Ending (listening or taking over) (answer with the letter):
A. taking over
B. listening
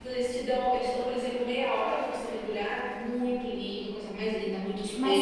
A